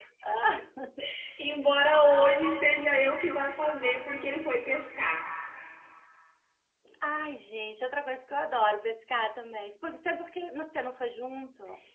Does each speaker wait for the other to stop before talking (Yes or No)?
Yes